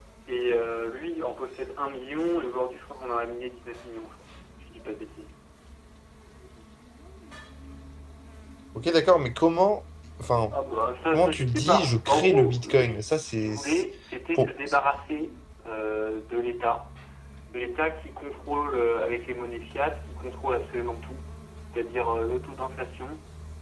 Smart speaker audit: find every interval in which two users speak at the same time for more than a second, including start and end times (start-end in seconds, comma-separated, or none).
11.1-13.8